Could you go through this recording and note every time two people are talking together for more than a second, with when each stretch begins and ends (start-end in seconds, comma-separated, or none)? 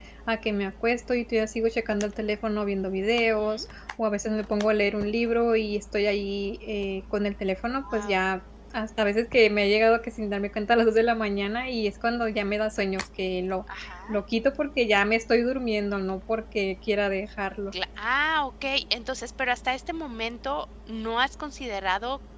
none